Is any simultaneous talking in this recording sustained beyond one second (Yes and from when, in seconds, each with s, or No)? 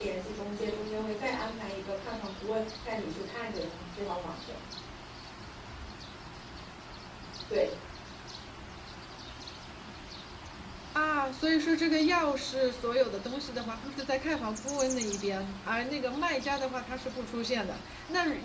No